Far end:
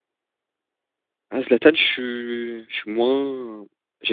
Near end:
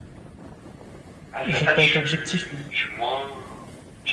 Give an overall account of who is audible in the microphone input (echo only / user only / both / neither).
both